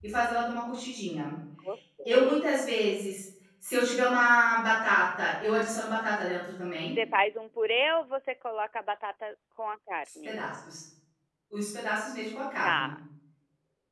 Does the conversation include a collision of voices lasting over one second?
No

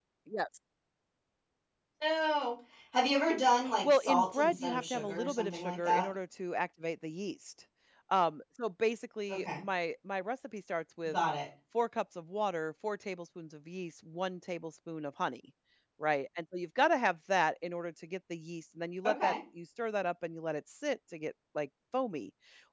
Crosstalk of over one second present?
Yes, from 3.8 s

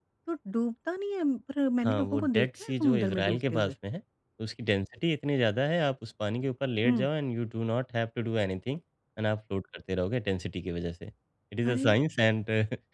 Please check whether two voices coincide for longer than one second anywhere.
Yes, from 1.8 s

